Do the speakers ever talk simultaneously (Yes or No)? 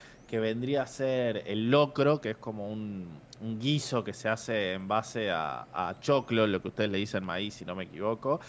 No